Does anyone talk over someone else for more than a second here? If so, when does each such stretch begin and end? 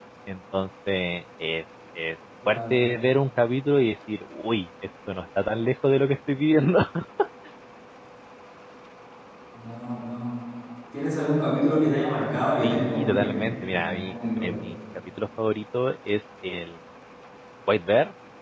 12.6-14.6

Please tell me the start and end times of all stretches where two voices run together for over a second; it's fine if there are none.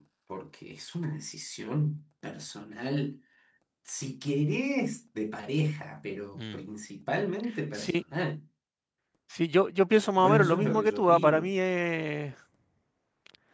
10.2-11.5

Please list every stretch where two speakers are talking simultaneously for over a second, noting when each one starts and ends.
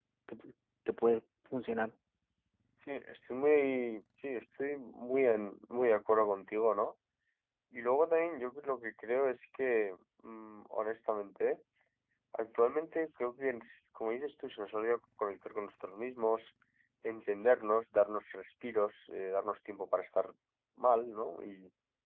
none

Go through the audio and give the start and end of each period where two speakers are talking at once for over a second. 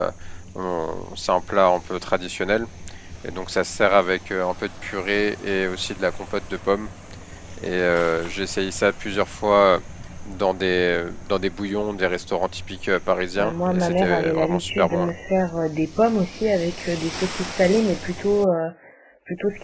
13.4-15.1

